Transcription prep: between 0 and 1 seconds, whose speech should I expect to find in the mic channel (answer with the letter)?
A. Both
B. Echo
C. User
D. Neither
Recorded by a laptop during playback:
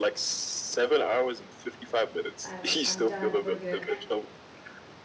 B